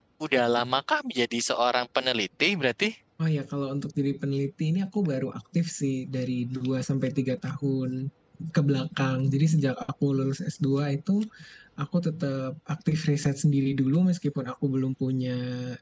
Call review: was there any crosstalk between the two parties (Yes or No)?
No